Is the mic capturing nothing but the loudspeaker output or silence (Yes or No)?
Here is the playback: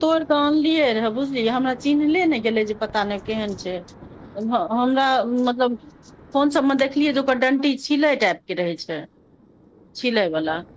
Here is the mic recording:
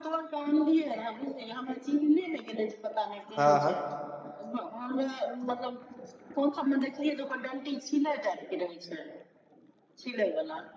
No